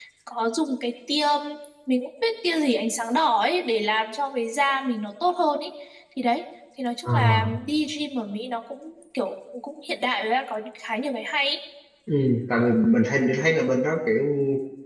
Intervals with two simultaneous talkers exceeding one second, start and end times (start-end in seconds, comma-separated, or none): none